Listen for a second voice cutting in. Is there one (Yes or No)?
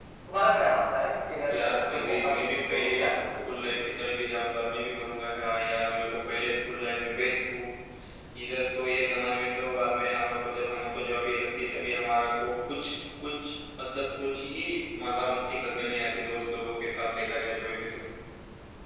Yes